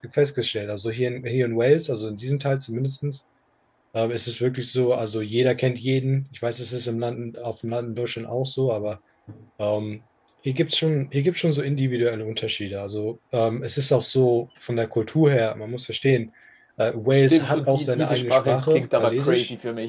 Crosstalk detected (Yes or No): Yes